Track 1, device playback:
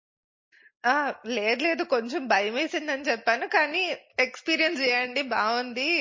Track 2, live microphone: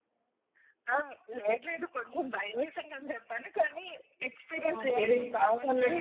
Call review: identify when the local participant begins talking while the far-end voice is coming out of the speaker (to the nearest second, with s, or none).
5 s